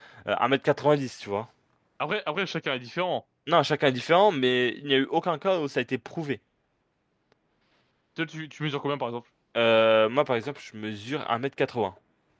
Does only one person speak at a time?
Yes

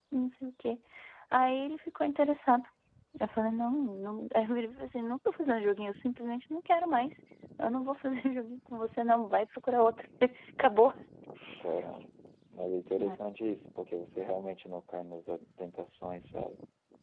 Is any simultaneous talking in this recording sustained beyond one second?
No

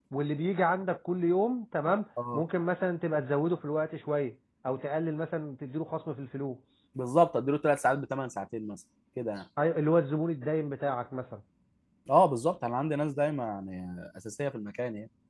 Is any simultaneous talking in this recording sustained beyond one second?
No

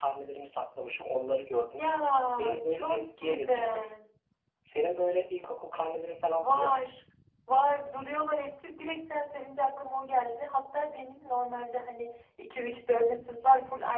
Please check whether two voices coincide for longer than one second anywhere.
Yes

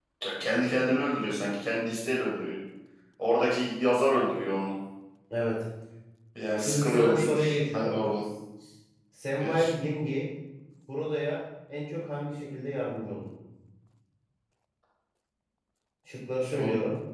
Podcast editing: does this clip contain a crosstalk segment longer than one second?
Yes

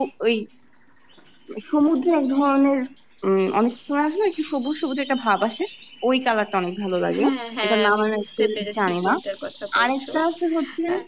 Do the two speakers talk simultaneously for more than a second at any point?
Yes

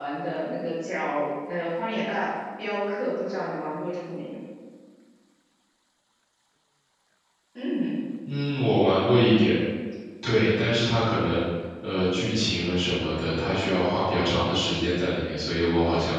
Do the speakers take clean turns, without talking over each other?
Yes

